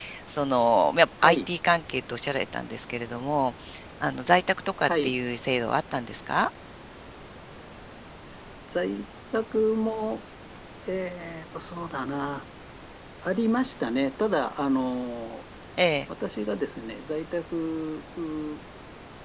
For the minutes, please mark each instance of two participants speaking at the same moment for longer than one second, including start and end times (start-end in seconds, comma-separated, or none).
none